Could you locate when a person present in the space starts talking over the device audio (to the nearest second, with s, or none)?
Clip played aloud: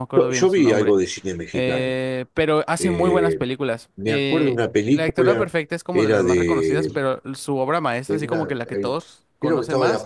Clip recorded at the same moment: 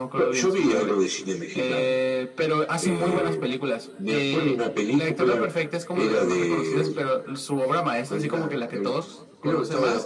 none